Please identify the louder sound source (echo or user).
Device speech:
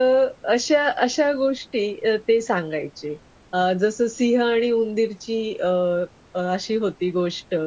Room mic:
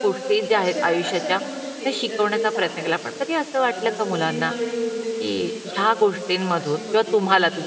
user